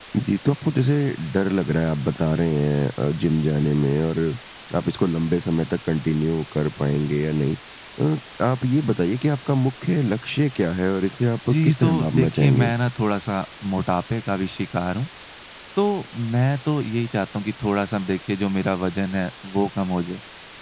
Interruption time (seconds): 11.5 s

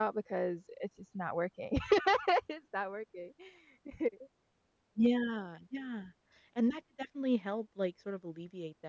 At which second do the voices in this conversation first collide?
none

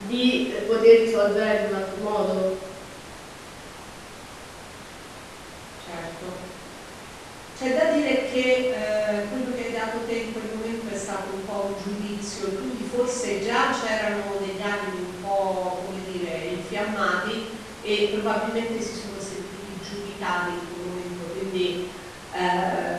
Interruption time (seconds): none

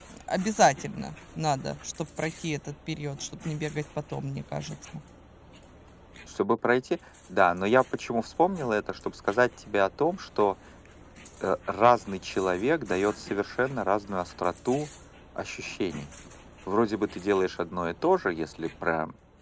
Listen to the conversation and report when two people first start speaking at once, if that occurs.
none

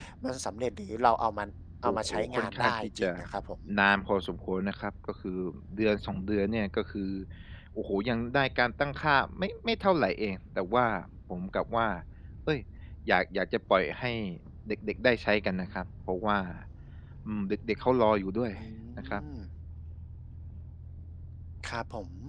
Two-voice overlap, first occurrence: 1.8 s

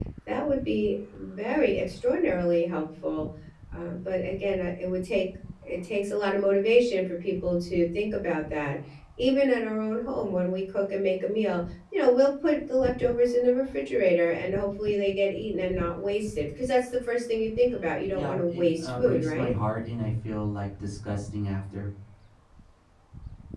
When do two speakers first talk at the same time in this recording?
18.1 s

